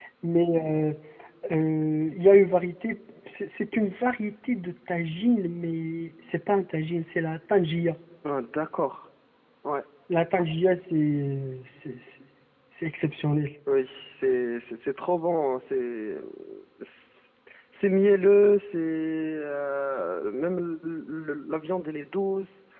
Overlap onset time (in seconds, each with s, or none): none